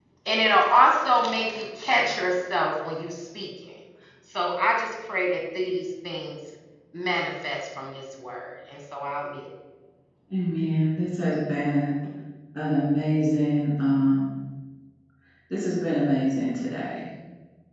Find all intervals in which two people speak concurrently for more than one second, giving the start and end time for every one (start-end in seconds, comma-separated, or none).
none